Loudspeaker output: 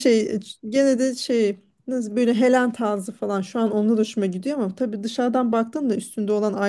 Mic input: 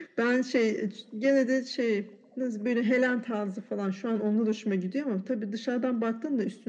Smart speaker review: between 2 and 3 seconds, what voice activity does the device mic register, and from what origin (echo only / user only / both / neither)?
echo only